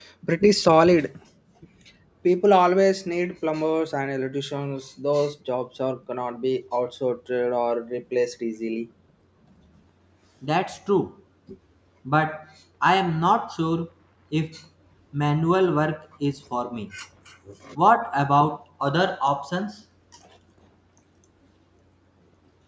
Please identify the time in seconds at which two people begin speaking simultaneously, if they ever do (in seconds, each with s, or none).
none